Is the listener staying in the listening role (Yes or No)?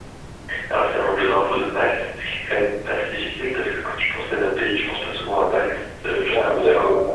No